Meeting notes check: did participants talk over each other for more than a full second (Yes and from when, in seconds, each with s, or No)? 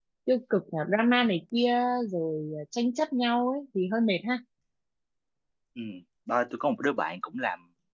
No